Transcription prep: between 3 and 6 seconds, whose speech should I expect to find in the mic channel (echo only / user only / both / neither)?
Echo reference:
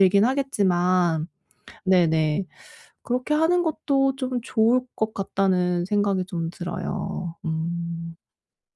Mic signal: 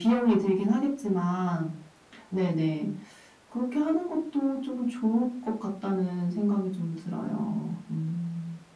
echo only